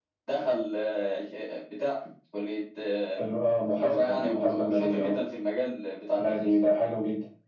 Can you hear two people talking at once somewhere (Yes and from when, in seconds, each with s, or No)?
Yes, from 3.7 s